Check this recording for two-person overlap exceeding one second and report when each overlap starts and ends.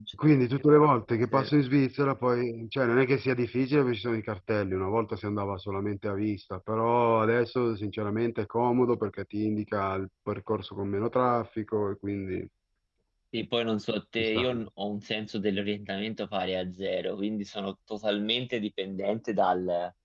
none

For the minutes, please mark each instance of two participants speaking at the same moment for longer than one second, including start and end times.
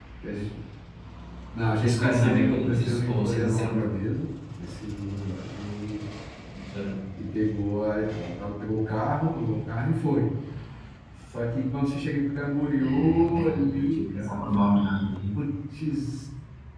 1.8-3.9, 12.7-14.9

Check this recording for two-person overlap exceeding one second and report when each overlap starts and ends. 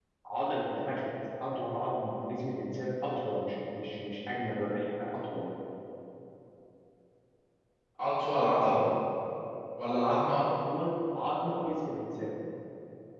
none

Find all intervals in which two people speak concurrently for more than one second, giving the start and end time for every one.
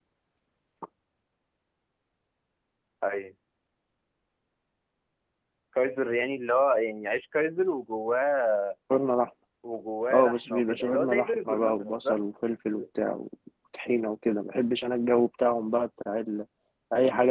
10.1-12.2

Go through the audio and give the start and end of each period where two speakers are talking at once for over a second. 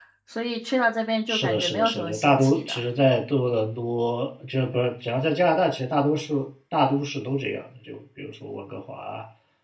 1.3-2.8

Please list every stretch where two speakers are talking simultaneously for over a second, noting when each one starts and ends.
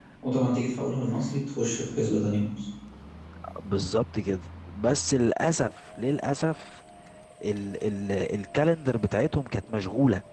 none

